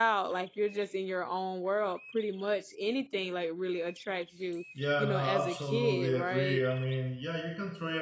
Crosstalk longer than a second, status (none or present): present